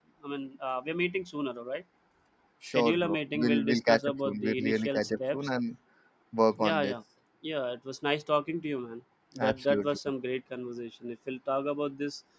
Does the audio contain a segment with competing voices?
Yes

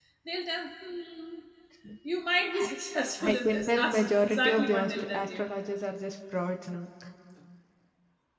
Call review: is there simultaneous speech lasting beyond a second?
Yes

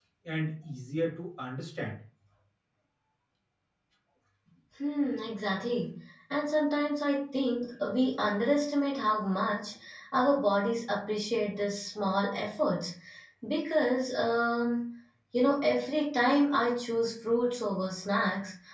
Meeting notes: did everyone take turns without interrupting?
Yes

